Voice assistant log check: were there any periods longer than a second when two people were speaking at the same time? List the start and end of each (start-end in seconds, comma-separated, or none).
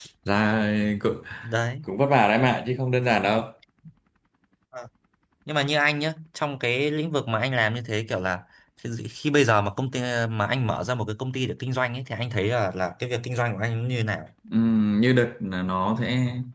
none